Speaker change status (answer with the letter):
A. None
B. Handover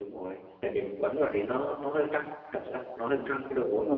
B